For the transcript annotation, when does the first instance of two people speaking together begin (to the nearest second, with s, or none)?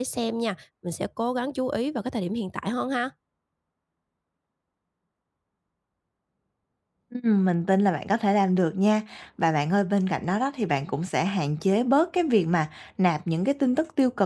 none